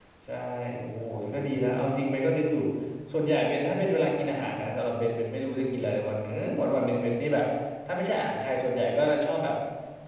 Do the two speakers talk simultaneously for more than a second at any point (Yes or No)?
No